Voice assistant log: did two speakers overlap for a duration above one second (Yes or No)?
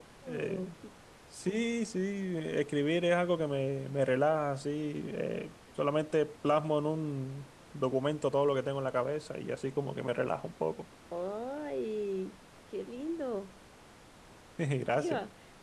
No